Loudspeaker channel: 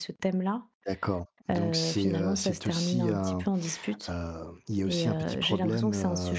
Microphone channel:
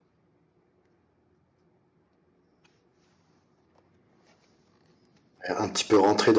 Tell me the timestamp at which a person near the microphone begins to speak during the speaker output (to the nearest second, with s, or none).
5 s